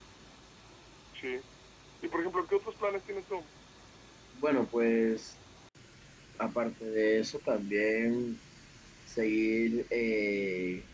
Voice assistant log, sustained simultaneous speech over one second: none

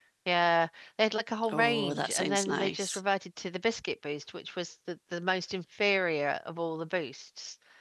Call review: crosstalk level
present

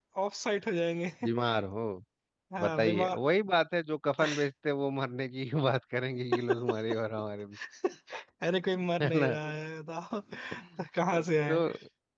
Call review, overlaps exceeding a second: none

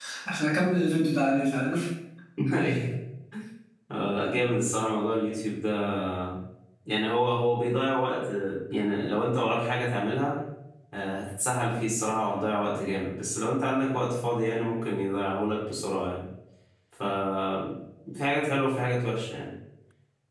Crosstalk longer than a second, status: none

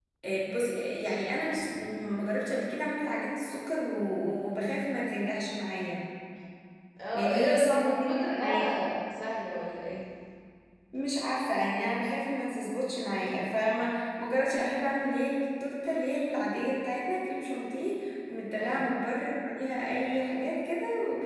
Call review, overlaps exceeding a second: present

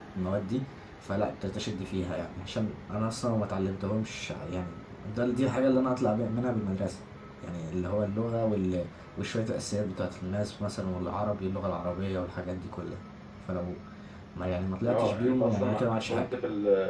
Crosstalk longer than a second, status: present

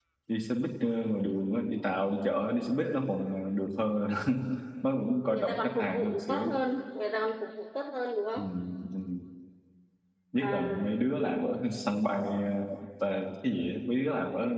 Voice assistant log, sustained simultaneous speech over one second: present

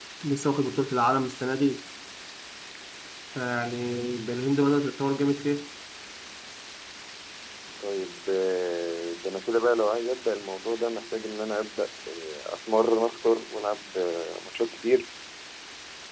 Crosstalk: none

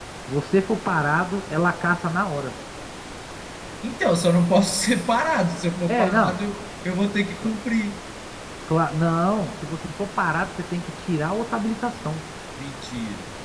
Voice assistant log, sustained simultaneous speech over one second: none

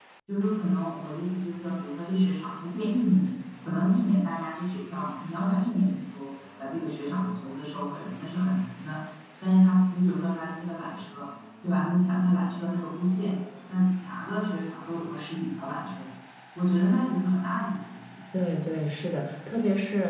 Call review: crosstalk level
none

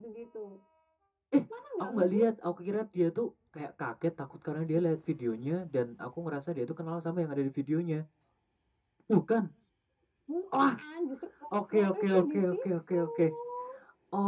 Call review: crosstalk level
present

